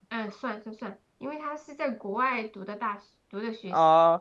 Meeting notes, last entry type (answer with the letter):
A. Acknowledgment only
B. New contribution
B